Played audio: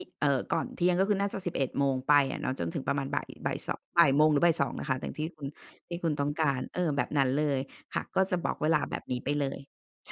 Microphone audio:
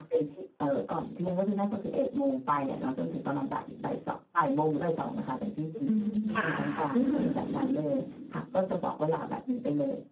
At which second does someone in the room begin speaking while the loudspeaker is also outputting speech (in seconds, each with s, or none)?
5.9 s